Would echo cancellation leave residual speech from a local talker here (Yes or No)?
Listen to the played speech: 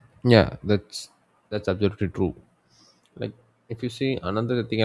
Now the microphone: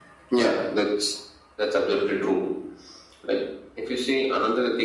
No